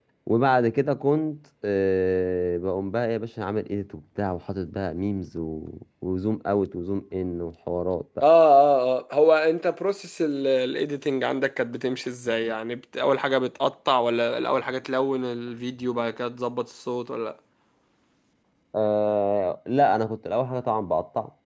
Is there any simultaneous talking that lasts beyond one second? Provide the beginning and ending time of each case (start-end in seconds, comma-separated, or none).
none